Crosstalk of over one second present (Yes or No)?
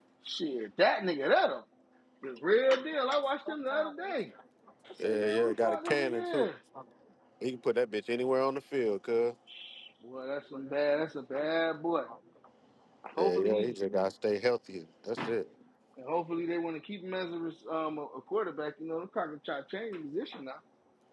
Yes